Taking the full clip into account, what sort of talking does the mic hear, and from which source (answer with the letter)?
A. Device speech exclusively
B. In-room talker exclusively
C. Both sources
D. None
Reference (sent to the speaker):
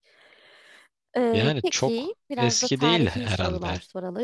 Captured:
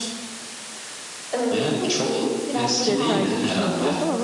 C